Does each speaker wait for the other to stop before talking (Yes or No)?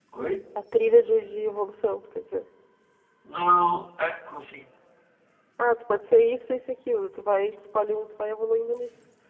Yes